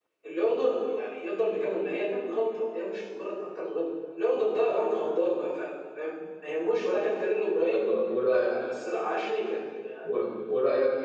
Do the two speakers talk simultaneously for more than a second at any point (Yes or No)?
No